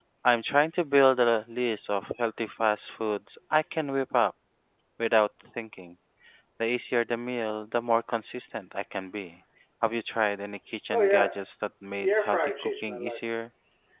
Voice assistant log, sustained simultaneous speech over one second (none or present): present